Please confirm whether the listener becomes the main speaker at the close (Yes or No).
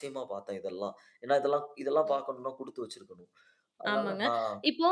Yes